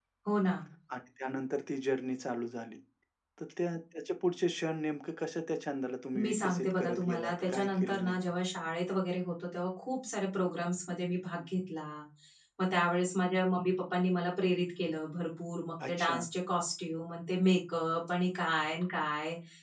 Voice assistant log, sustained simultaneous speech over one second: present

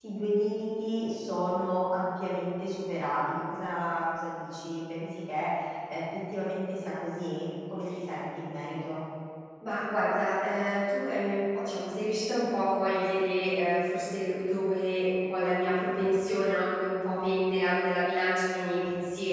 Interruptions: none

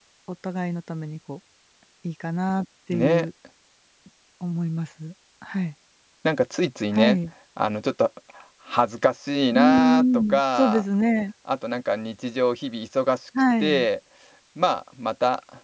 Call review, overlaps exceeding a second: present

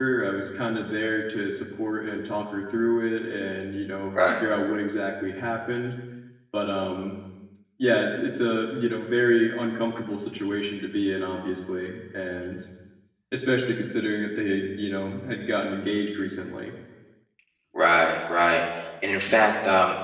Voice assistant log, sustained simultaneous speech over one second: none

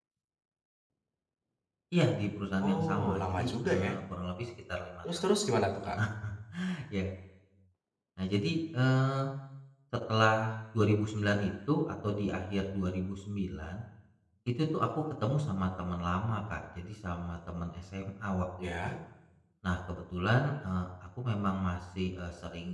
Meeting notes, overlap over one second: present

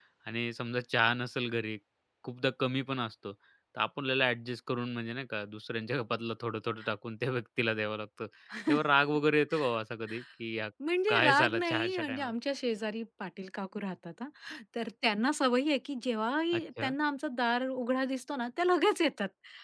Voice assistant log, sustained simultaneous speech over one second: present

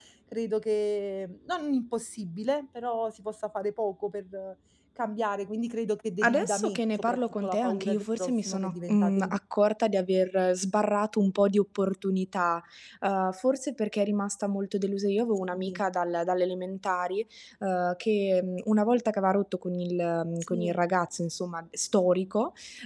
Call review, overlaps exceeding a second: present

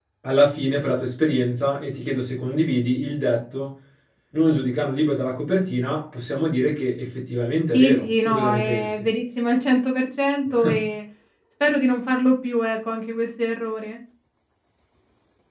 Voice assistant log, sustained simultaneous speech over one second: present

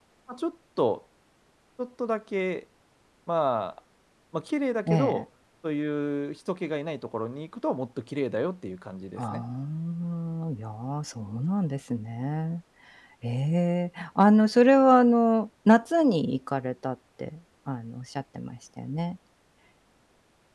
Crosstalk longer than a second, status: none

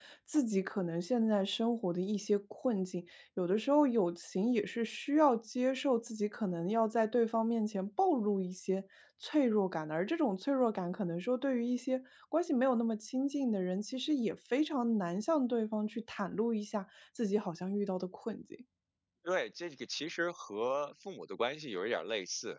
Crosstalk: none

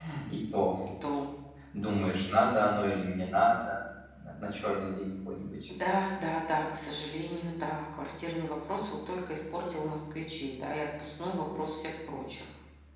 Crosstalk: none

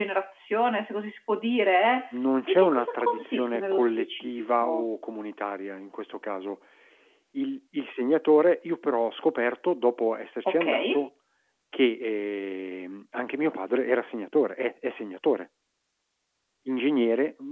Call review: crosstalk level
present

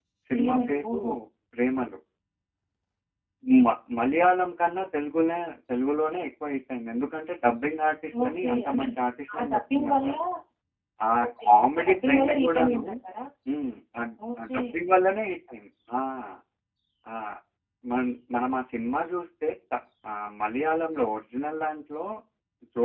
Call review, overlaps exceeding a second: present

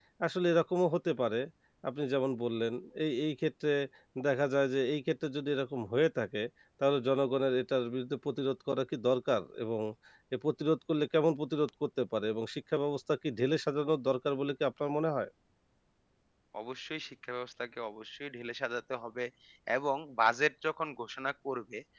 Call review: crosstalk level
none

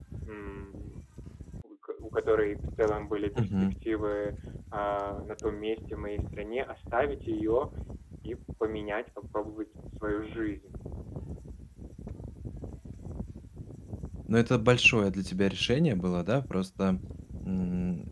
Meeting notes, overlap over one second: none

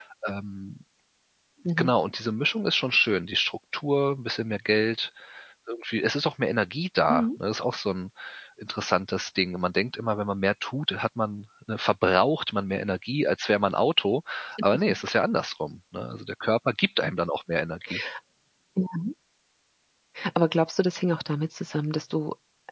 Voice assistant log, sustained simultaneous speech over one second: none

